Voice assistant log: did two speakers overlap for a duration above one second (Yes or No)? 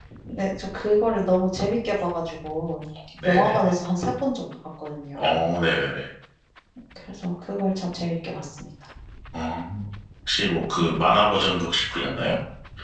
No